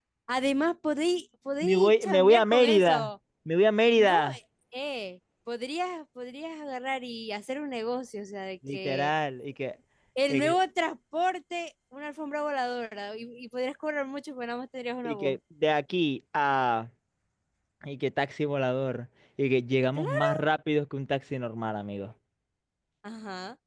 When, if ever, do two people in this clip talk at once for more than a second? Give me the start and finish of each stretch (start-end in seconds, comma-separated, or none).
1.6-3.1